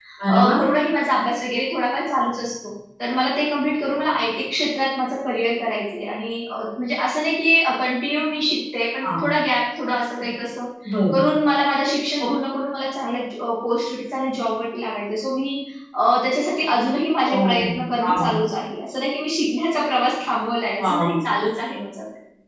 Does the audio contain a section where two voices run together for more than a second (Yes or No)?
No